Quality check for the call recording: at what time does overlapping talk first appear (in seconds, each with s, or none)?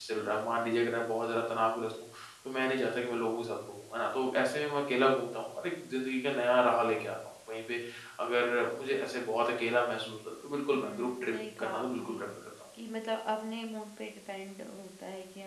10.7 s